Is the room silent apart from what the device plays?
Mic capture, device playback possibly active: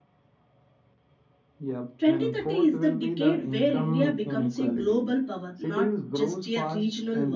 No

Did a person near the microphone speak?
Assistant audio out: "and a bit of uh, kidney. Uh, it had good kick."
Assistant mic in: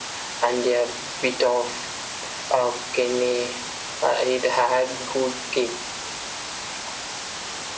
No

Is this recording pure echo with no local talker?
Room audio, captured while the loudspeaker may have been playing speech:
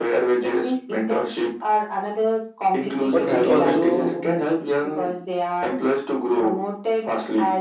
No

